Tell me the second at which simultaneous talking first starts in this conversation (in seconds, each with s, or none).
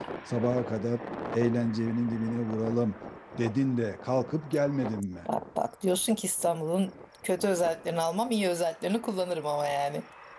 none